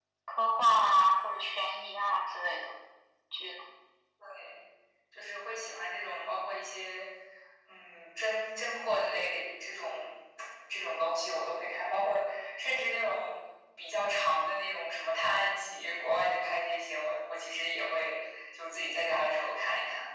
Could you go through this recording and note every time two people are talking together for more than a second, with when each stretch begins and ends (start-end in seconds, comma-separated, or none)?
none